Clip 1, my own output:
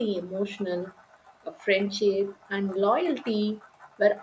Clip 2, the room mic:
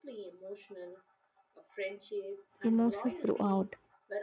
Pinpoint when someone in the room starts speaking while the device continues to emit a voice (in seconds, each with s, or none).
2.6 s